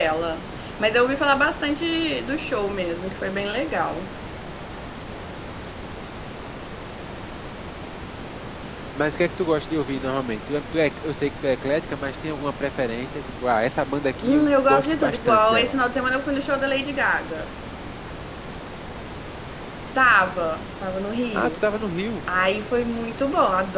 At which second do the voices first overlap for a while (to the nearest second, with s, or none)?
14 s